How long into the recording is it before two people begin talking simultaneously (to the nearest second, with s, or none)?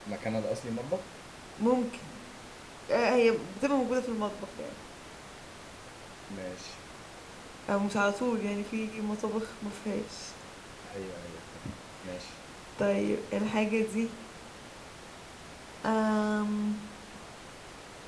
none